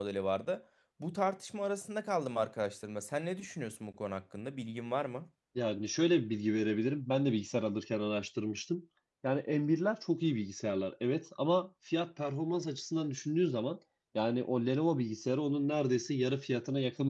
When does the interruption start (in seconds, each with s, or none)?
none